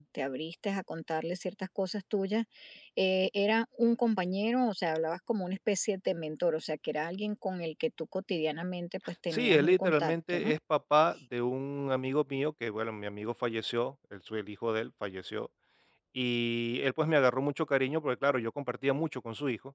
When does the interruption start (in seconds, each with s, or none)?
9.3 s